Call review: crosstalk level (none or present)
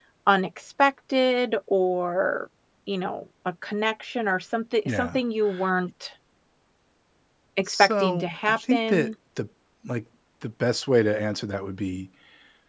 present